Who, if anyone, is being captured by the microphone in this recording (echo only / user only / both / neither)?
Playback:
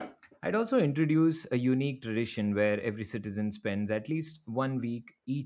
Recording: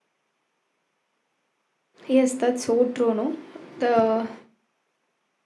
user only